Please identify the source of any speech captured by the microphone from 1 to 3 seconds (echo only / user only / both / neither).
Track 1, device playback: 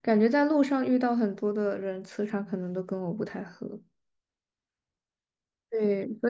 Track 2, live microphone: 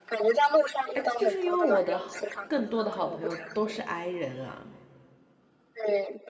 both